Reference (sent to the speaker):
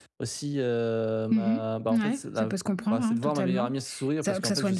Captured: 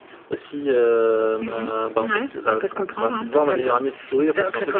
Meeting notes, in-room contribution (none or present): none